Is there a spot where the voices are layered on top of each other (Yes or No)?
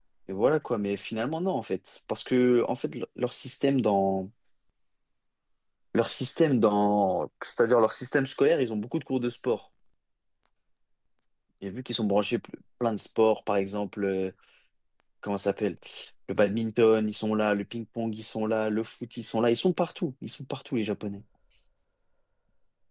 No